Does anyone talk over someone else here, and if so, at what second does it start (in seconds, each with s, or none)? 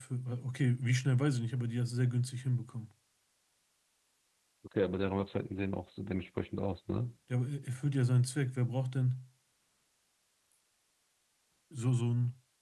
none